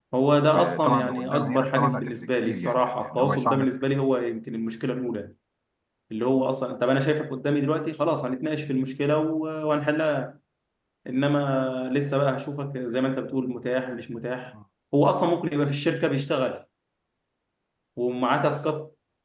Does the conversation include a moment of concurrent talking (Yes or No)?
Yes